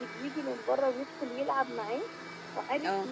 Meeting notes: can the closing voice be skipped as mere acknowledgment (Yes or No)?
Yes